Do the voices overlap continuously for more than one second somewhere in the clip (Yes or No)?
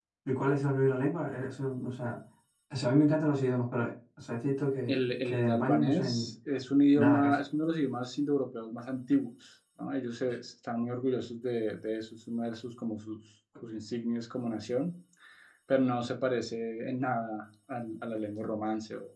Yes